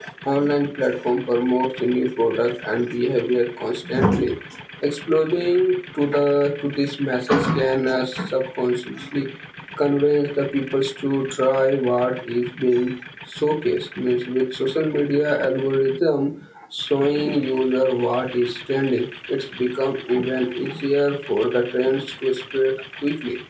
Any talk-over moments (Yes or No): No